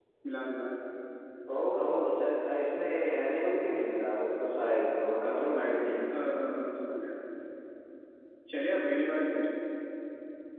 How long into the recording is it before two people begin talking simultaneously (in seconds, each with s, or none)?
none